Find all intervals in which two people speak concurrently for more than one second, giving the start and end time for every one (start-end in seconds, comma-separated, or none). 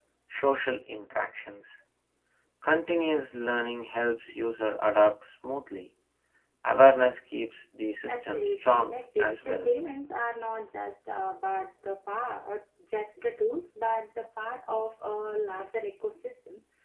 8.1-9.8